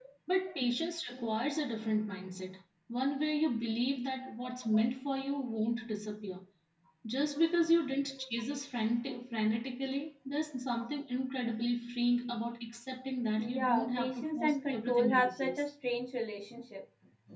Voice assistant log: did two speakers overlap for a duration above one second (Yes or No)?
Yes